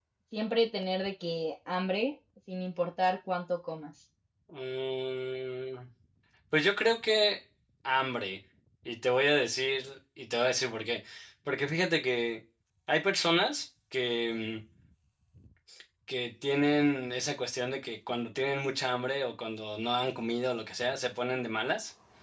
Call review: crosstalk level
none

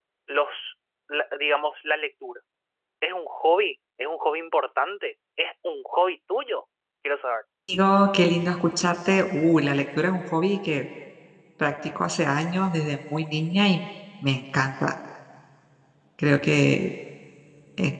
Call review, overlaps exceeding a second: none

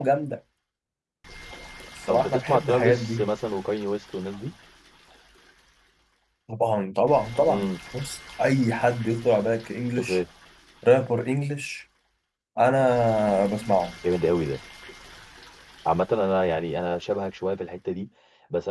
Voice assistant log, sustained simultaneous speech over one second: present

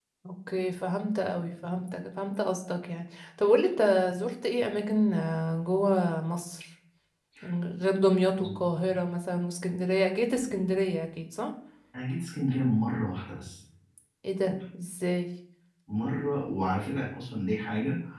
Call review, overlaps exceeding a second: none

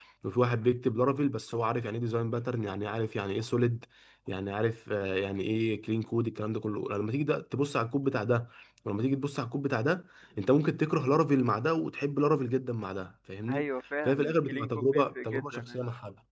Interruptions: present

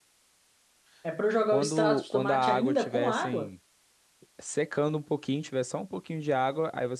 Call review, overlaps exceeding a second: present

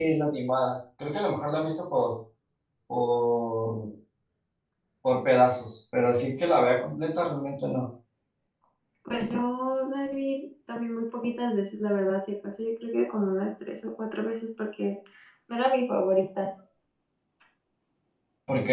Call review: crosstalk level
none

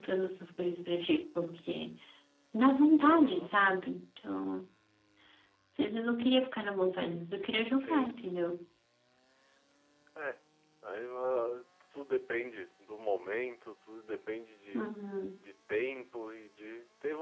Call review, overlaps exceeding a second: none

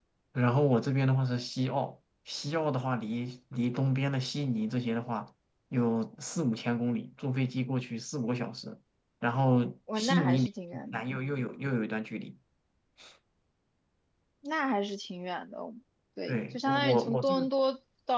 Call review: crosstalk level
present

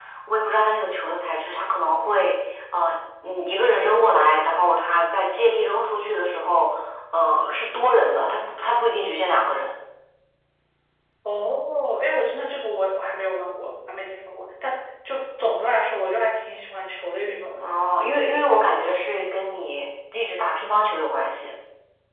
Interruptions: none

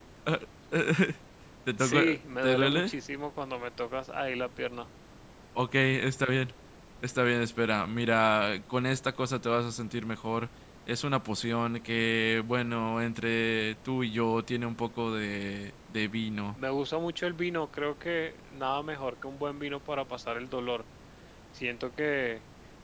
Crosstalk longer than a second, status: none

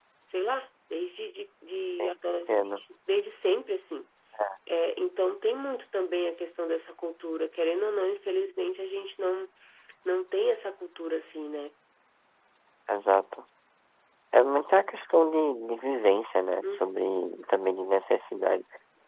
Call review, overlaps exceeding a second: none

